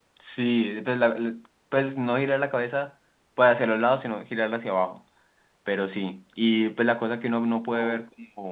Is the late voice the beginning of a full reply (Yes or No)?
No